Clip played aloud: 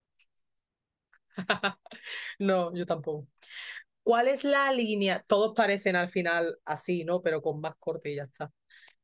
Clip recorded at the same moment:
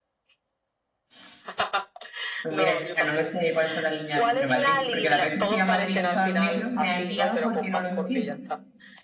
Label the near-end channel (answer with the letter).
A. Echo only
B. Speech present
B